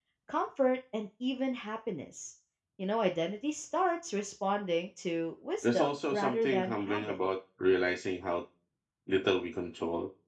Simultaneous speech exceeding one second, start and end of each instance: 5.6-7.2

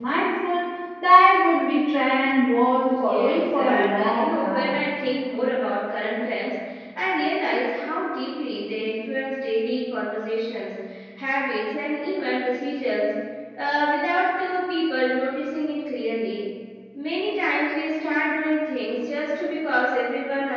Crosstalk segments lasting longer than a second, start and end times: 2.8-4.8

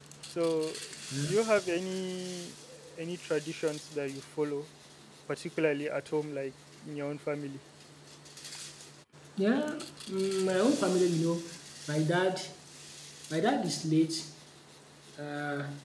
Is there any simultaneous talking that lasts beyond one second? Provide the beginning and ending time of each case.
none

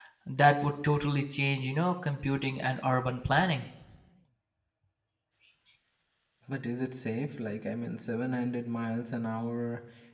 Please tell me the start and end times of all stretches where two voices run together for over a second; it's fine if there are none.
none

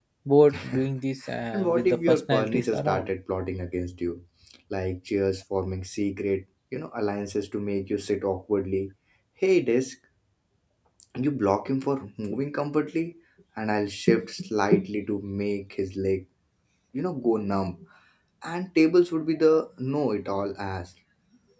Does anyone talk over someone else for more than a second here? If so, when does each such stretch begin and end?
1.5-3.1

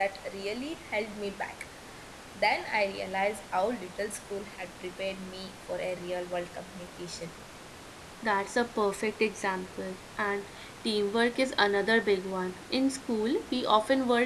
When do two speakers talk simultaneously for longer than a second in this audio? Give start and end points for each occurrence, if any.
none

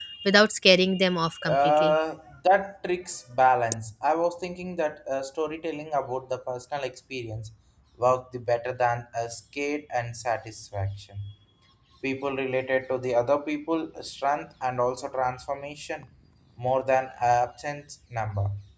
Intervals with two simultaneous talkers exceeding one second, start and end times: none

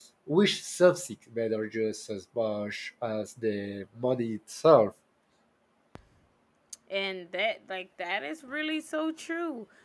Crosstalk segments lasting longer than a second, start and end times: none

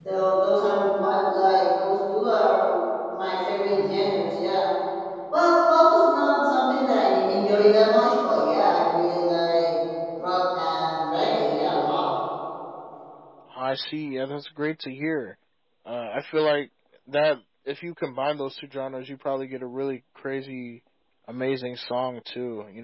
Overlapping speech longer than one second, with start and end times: none

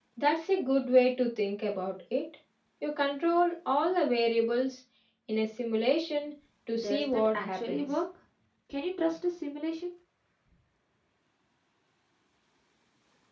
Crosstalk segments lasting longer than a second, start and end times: 6.8-8.0

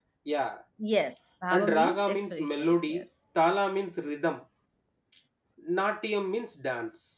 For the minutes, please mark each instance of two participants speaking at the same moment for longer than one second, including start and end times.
1.5-3.0

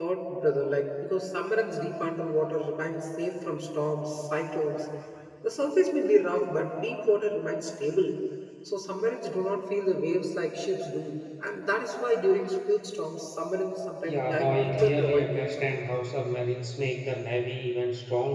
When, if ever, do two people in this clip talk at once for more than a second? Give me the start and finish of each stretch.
14.0-15.6

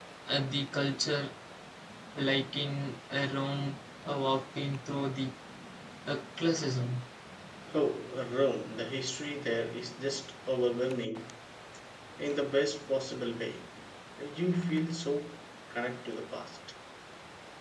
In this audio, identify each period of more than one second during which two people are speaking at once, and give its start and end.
none

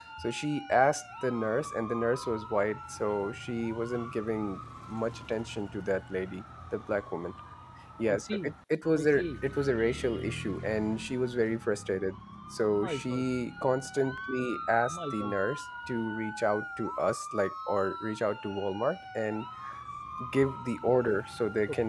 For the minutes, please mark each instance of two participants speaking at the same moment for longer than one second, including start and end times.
none

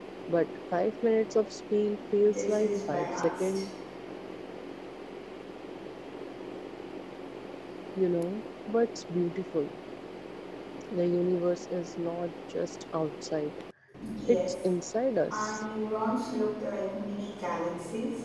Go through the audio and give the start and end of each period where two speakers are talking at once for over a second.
2.2-3.6

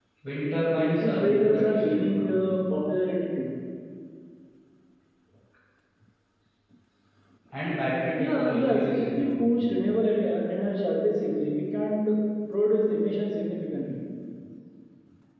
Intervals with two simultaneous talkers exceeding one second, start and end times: 0.7-2.4, 8.2-9.6

